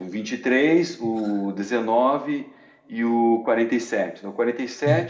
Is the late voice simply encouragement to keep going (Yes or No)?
No